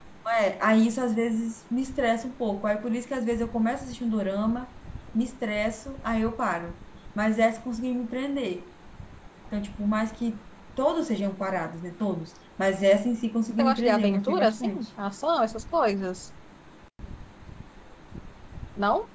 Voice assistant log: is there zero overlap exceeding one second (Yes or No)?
No